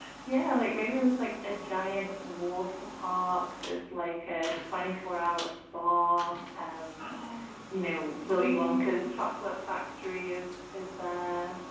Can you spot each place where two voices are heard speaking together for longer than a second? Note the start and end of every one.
8.2-10.0

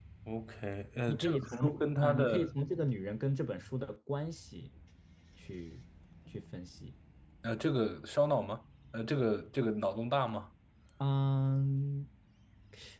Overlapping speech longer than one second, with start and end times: 1.1-2.5

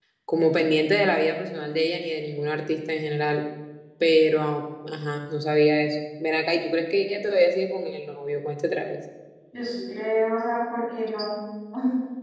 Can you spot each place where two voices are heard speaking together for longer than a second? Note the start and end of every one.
none

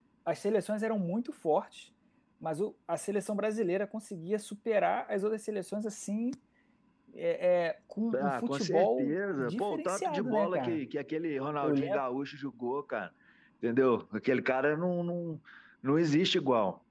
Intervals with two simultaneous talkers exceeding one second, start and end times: 8.2-10.8

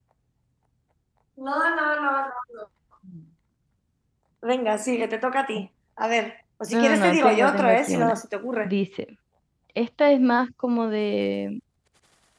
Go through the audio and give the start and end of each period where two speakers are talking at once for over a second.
6.7-8.2

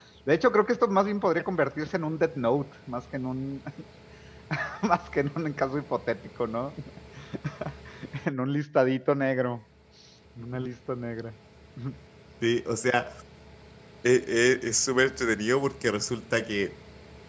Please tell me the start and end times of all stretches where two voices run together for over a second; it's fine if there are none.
none

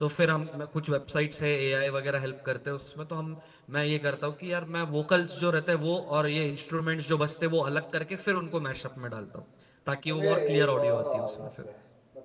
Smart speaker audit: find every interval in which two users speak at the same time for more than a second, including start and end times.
10.1-11.5

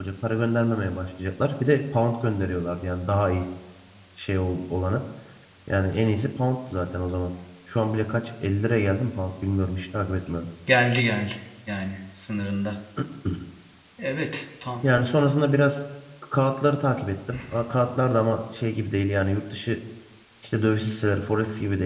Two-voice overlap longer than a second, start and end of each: none

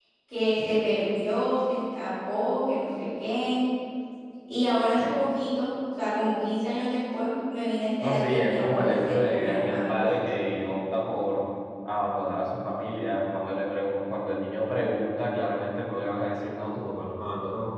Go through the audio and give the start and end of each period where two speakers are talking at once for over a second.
8.0-10.3

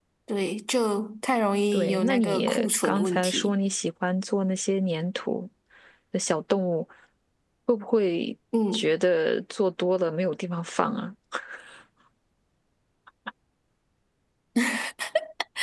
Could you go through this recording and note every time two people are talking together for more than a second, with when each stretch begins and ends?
1.7-3.5

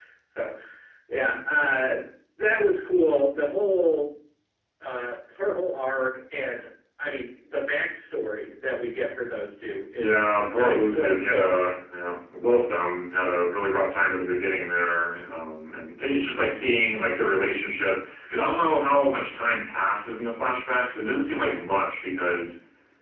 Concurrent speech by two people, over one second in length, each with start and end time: 10.0-11.6

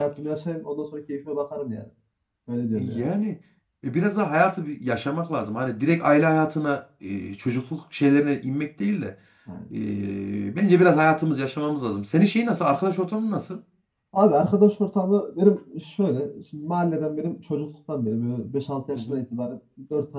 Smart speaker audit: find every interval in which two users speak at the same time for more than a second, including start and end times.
none

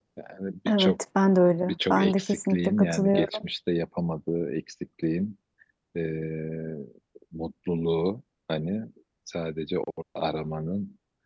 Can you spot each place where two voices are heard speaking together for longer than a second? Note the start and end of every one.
1.6-3.4

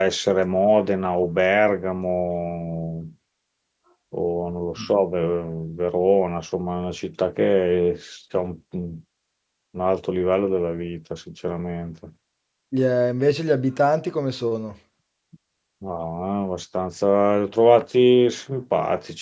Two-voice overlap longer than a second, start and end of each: none

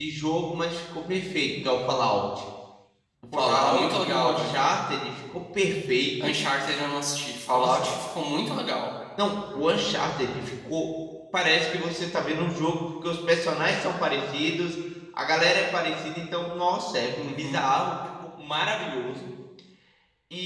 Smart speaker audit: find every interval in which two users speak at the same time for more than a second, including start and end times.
3.3-4.7

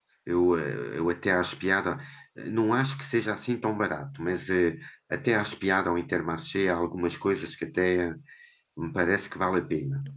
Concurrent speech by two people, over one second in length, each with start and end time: none

